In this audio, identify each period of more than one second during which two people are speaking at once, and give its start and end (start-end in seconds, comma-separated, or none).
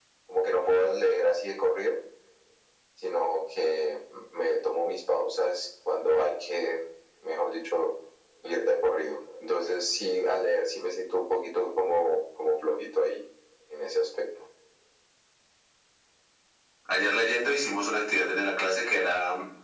none